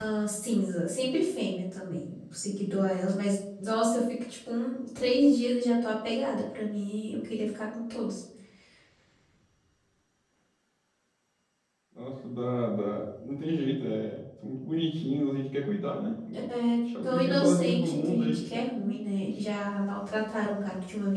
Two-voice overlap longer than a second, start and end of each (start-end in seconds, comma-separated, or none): 16.9-18.5